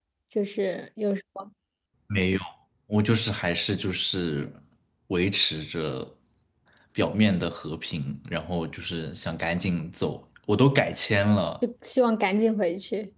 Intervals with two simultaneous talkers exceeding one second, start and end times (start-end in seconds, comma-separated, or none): none